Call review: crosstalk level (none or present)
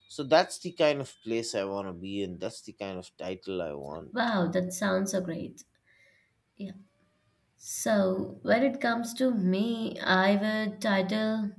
none